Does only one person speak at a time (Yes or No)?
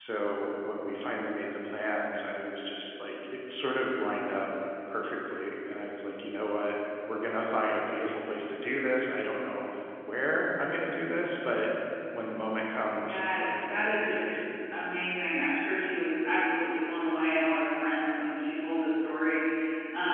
No